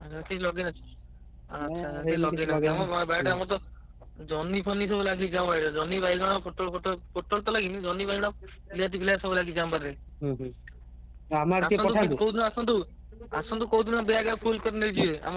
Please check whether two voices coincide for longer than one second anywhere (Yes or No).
Yes